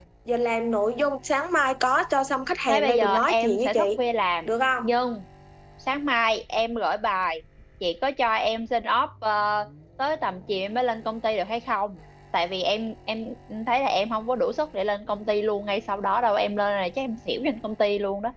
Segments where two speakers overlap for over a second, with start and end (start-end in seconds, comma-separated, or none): 2.7-4.0